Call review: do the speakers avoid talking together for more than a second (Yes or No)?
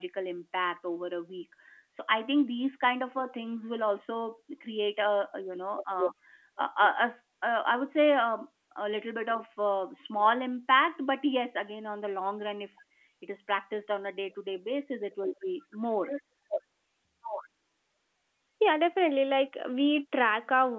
Yes